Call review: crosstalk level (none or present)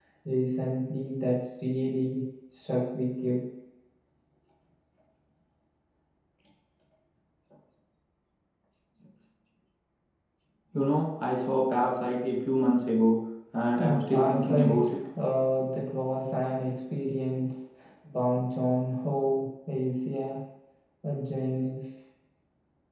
present